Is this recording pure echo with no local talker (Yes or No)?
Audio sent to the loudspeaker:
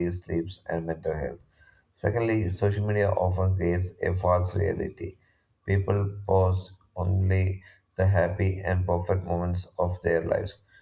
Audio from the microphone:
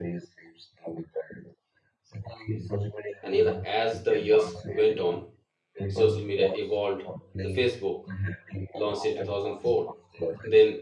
No